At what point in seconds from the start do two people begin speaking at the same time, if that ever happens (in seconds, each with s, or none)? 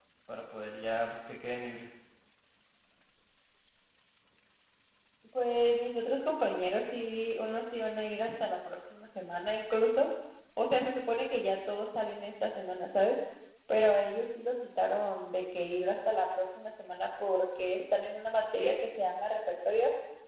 none